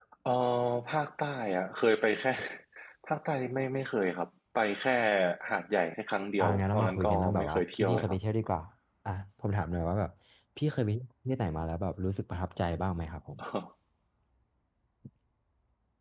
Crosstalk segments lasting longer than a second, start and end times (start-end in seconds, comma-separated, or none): 6.4-8.2